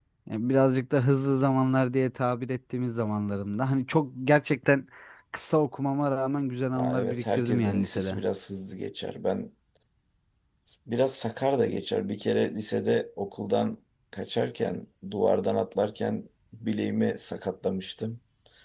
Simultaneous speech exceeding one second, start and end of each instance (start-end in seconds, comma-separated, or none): 6.7-8.2